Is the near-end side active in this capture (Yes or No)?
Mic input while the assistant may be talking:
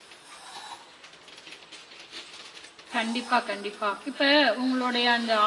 Yes